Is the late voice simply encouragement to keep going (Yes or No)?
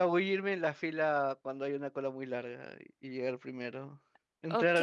No